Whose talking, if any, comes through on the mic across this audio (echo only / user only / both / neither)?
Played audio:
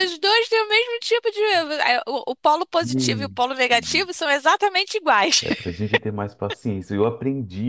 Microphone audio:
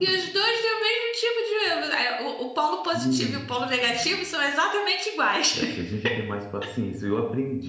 echo only